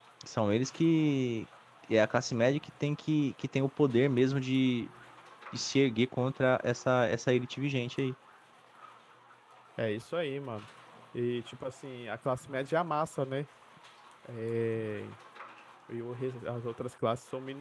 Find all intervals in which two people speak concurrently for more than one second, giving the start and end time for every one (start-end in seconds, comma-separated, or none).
none